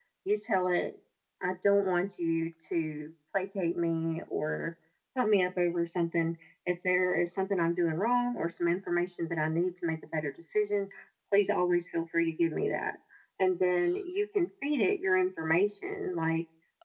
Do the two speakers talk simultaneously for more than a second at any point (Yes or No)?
No